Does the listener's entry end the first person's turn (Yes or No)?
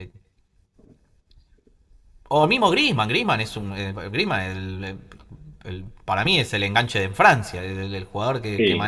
No